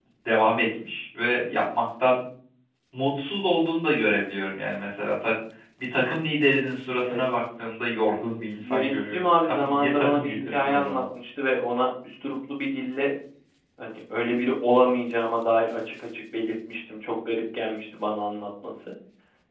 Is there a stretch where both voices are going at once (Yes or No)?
Yes